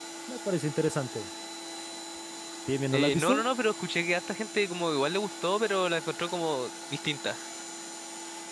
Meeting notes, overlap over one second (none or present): none